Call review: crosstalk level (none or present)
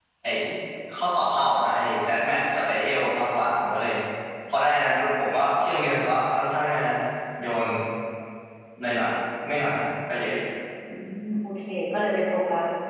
none